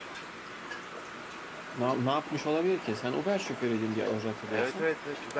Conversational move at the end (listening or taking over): taking over